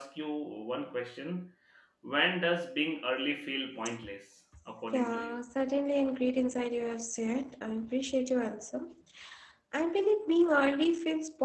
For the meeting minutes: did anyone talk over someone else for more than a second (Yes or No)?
No